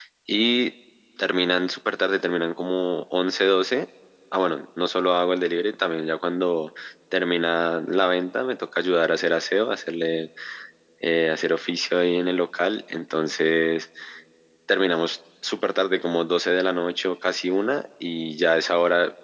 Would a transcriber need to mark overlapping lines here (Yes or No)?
No